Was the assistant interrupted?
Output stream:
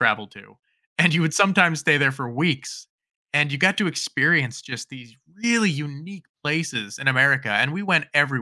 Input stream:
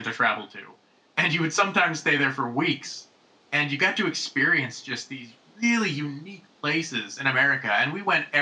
No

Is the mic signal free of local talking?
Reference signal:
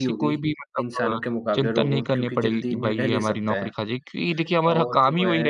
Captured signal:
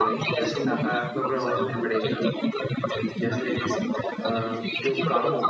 No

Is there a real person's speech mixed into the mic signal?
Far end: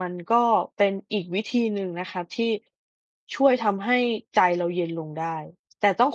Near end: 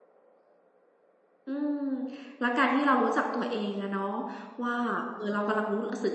Yes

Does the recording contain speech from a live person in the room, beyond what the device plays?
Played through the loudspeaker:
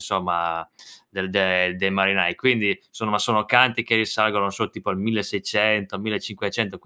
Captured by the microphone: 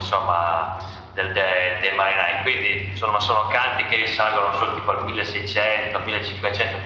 No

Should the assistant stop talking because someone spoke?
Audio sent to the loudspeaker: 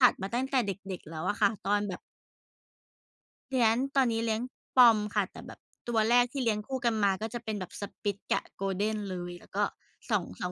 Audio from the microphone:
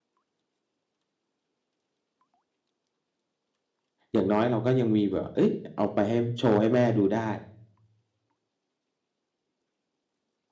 Yes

